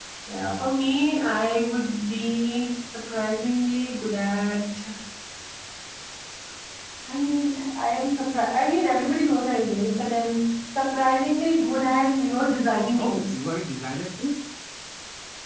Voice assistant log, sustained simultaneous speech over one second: none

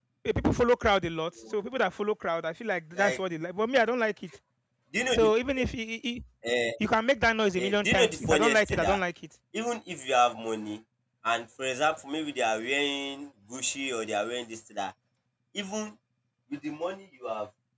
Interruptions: present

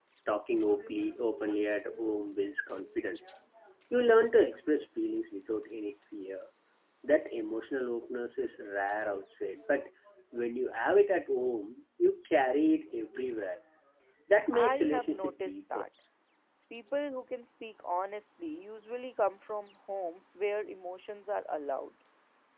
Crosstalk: present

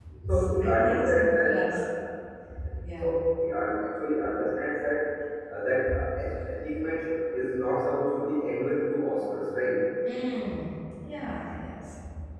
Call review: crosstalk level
present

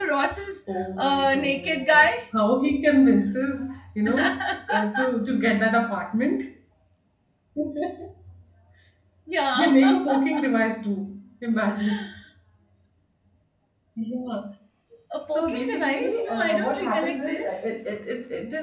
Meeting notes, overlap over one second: present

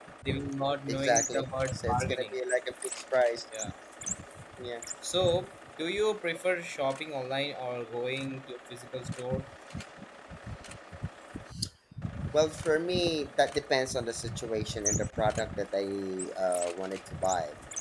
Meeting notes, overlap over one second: present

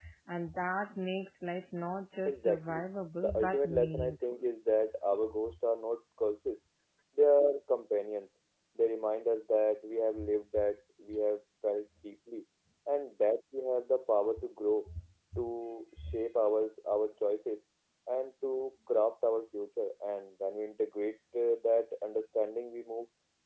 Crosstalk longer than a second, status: present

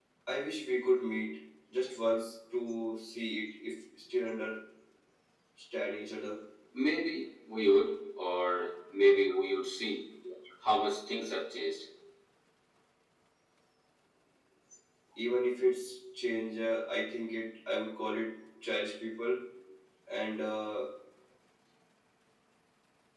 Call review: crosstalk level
none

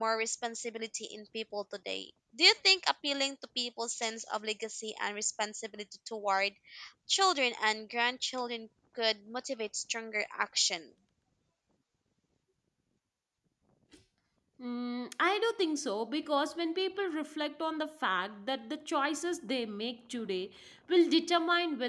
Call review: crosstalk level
none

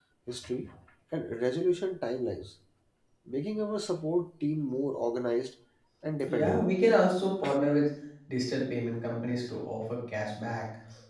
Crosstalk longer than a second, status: none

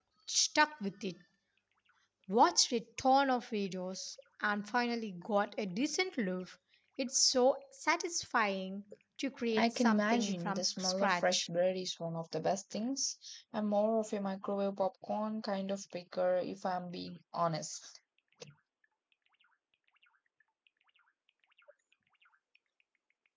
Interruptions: present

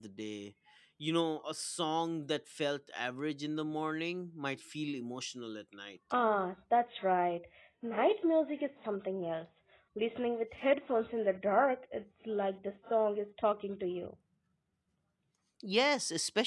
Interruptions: none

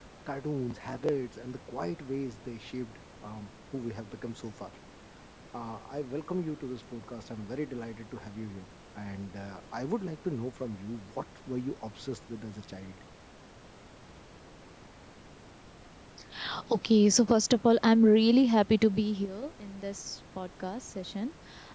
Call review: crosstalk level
none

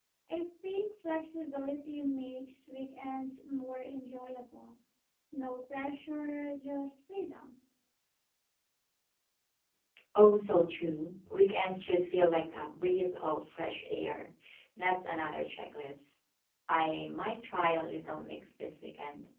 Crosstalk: none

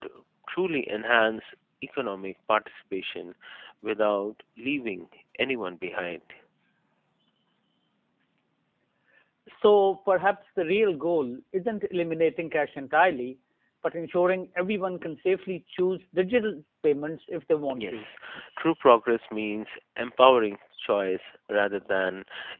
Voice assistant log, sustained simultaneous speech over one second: none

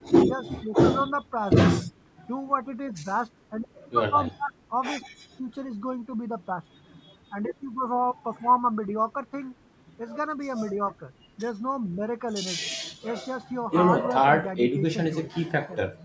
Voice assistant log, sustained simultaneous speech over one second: present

